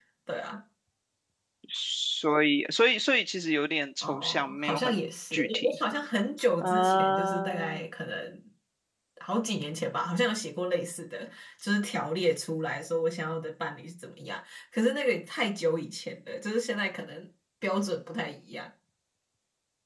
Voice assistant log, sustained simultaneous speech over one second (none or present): present